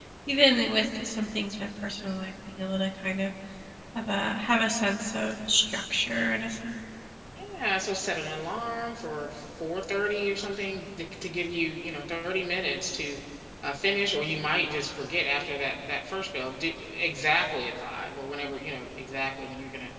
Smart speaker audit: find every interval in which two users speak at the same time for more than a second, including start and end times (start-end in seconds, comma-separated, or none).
none